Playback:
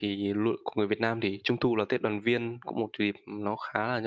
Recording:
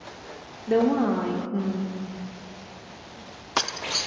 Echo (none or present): none